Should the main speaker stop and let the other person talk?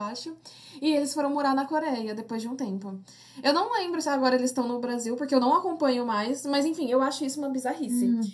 Yes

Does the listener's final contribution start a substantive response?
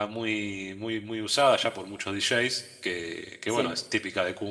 No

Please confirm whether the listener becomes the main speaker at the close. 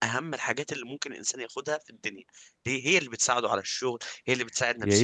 Yes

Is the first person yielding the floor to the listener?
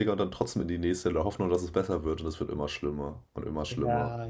Yes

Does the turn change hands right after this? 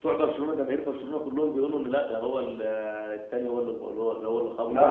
Yes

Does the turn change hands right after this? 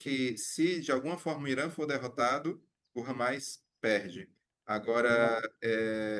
No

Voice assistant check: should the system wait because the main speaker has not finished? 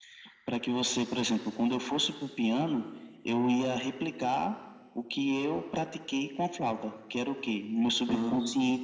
Yes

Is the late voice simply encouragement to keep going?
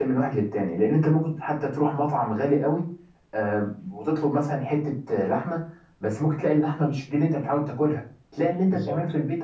Yes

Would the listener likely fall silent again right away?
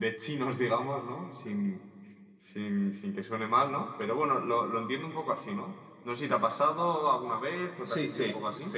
No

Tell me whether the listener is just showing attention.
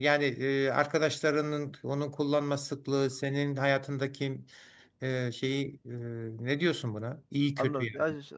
No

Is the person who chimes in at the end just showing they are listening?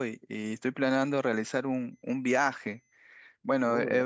Yes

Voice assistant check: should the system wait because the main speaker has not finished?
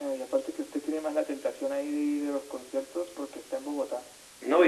No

